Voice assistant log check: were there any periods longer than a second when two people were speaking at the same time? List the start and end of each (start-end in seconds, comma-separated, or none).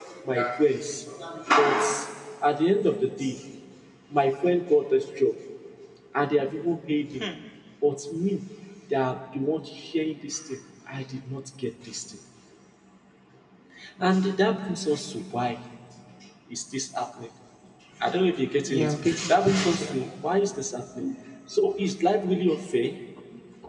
18.7-20.0